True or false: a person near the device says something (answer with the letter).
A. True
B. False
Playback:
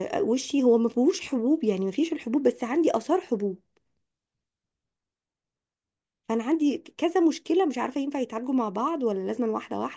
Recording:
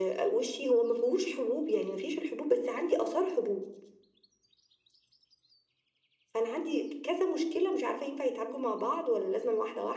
B